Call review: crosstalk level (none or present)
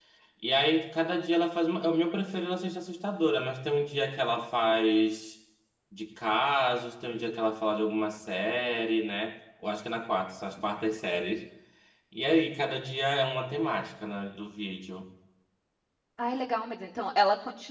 none